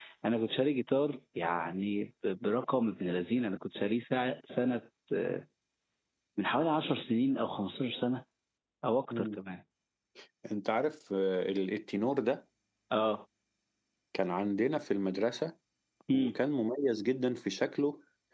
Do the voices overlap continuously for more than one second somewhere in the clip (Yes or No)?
No